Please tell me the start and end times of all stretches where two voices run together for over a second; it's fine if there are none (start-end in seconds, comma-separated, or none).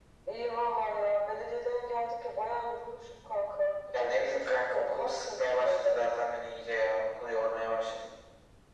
3.9-6.0